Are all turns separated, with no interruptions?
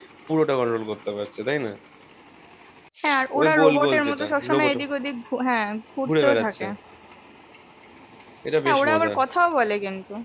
No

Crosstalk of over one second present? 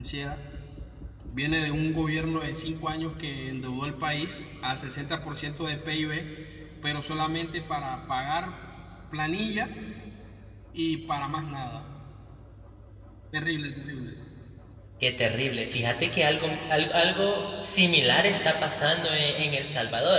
No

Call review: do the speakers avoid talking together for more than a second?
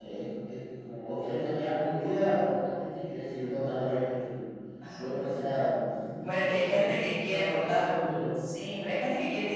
No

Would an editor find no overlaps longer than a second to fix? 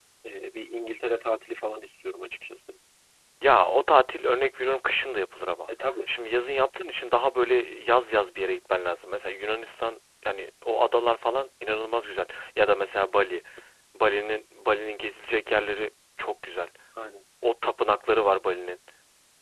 Yes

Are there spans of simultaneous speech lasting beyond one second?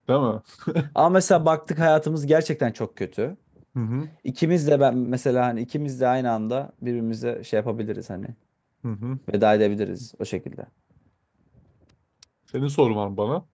No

